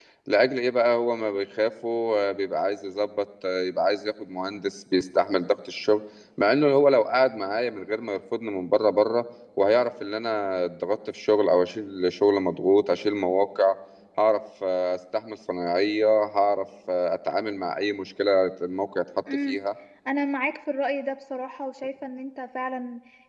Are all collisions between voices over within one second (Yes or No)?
Yes